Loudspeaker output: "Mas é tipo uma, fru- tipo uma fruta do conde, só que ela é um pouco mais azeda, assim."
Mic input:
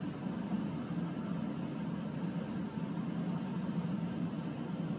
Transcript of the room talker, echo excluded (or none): none